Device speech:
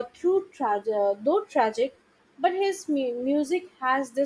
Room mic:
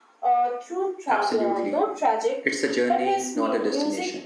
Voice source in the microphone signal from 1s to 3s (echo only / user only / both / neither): both